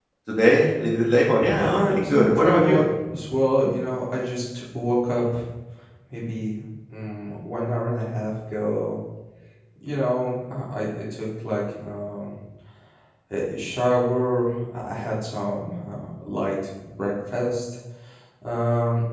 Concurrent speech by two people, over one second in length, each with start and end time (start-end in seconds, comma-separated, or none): 1.4-2.8